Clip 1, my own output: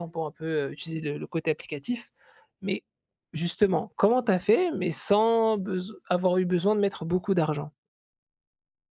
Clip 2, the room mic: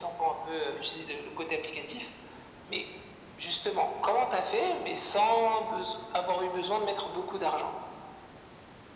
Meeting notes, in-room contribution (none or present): none